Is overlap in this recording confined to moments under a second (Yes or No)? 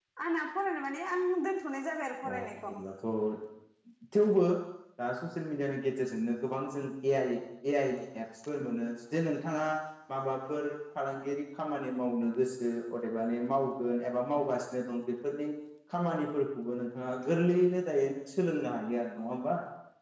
Yes